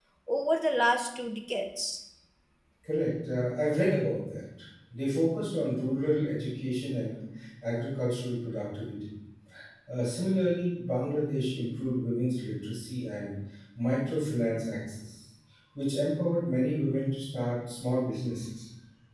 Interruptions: none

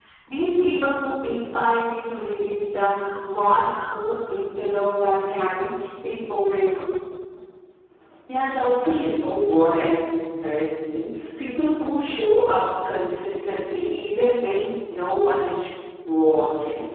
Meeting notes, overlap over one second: none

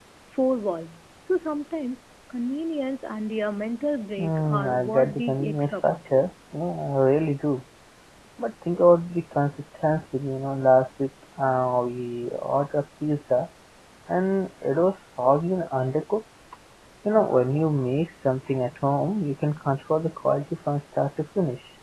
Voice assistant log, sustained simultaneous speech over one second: present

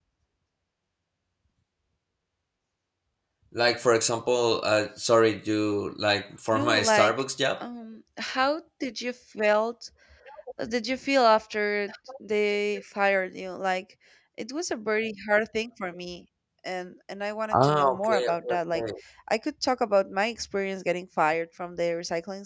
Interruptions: present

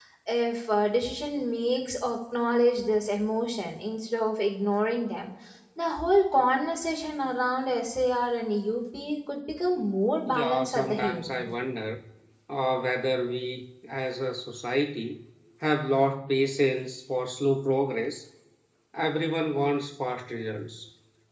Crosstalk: present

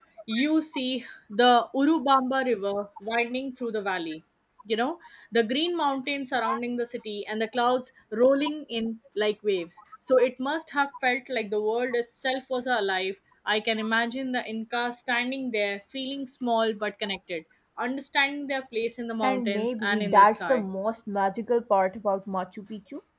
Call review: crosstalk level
present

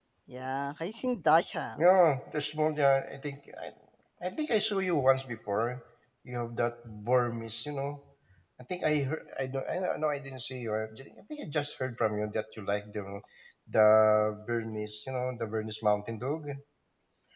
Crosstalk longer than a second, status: none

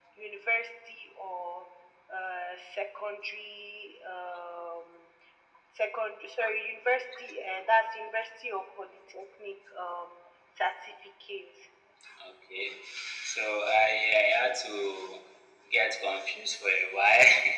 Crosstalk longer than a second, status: none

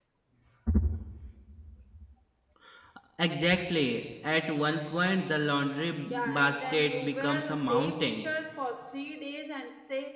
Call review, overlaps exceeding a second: present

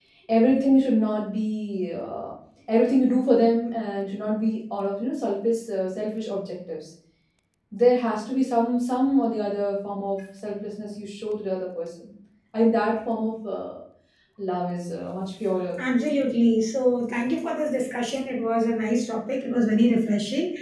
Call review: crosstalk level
none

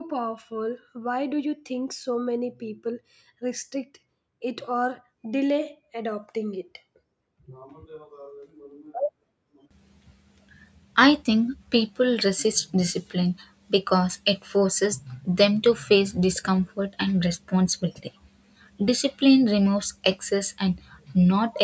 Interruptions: none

